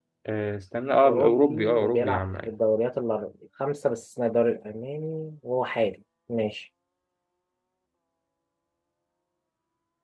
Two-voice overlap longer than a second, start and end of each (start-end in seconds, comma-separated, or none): 1.1-2.5